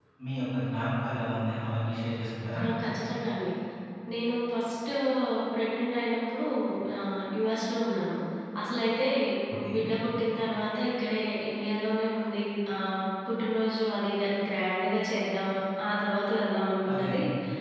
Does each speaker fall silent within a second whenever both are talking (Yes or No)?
Yes